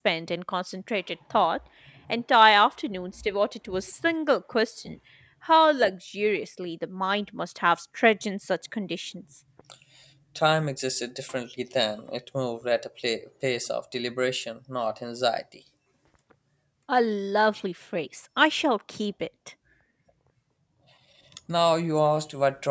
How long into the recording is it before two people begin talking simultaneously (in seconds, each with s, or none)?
none